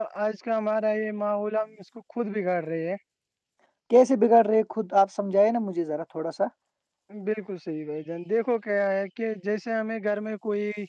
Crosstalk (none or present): none